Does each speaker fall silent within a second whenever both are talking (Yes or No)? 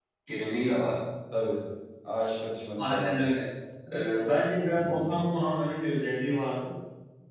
Yes